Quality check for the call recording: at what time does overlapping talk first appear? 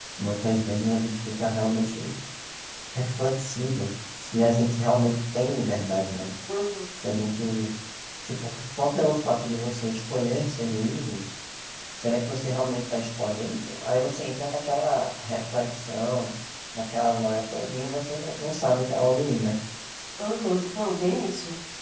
none

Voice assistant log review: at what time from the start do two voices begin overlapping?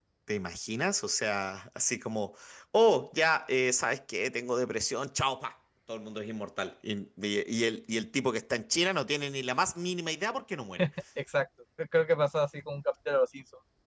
none

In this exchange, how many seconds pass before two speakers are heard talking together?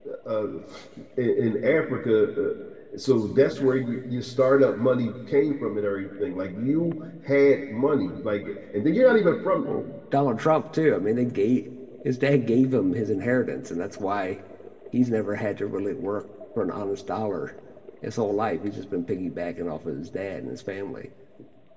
none

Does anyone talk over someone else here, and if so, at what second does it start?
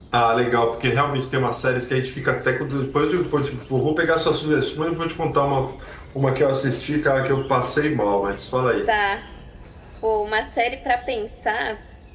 none

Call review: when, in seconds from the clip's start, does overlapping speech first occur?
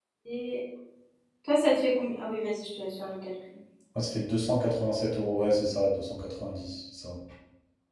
none

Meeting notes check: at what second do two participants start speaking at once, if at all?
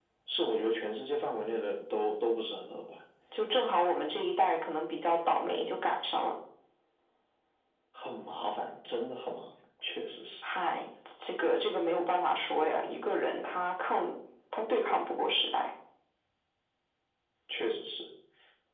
none

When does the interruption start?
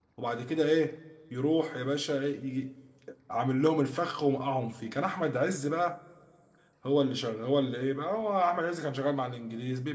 none

